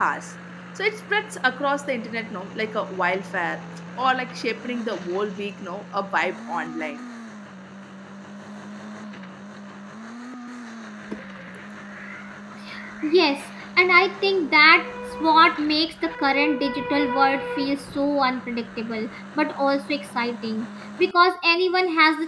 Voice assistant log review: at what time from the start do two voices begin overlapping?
none

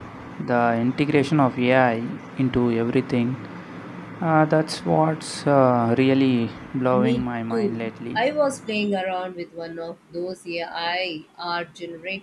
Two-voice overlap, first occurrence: 6.9 s

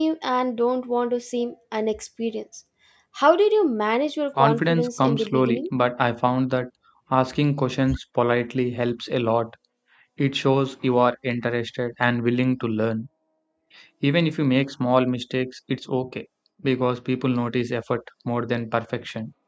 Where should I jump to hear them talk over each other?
4.4 s

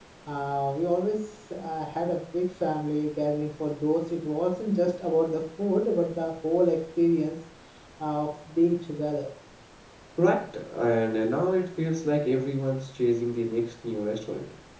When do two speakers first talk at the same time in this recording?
none

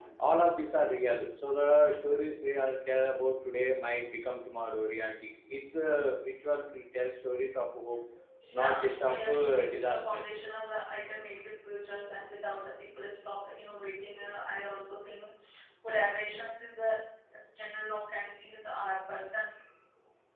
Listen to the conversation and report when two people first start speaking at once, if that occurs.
8.6 s

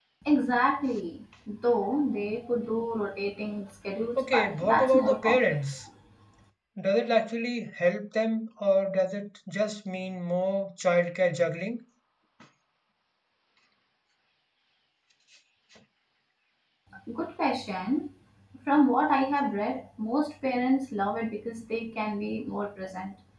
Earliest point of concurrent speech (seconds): 4.2 s

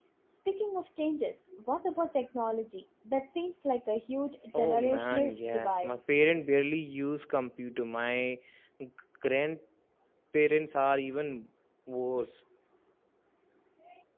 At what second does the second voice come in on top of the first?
4.5 s

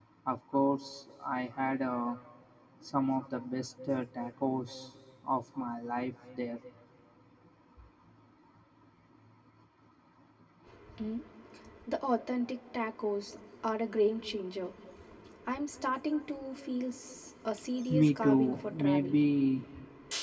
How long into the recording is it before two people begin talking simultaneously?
17.9 s

